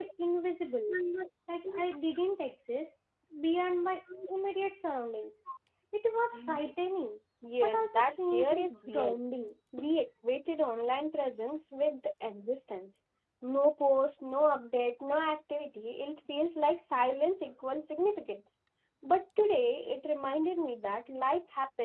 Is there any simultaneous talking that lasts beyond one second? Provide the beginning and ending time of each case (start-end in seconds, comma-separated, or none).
7.6-9.2